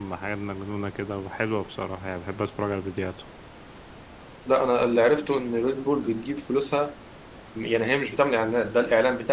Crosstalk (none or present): none